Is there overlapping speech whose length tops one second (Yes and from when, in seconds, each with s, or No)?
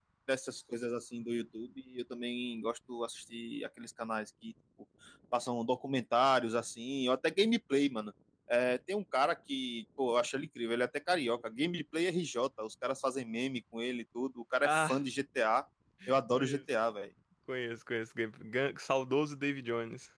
No